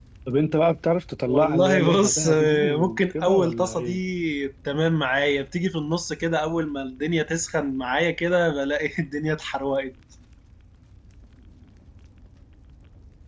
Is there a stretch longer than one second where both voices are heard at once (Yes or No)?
Yes